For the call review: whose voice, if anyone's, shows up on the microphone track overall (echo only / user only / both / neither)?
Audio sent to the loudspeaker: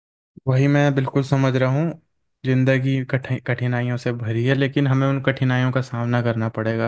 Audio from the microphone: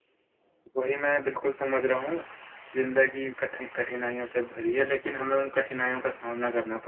echo only